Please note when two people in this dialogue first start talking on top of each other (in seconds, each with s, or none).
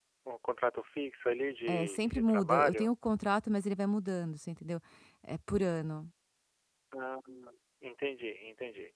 1.7 s